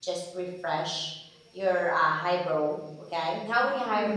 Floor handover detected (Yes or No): No